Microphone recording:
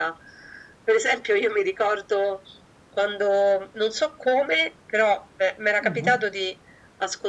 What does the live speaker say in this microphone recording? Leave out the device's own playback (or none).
Mhm.